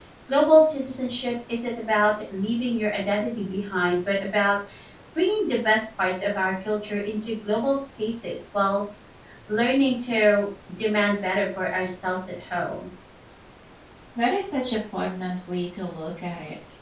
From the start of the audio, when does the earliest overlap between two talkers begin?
none

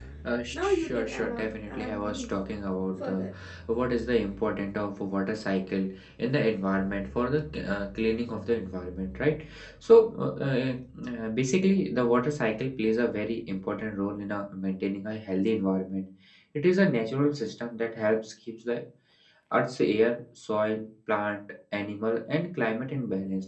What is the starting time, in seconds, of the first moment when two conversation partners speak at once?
0.5 s

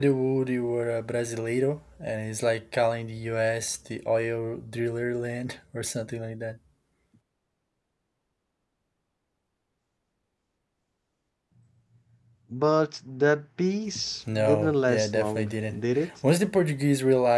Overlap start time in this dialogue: 14.3 s

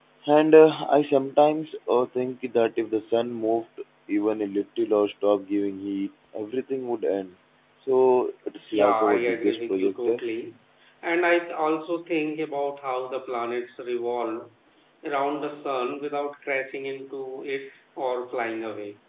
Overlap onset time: 8.7 s

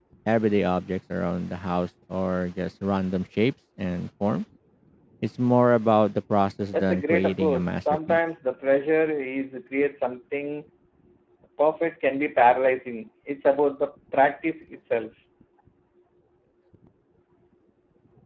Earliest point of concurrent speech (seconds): 6.7 s

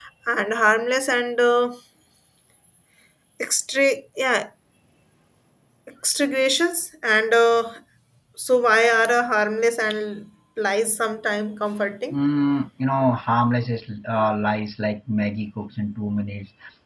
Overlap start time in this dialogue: none

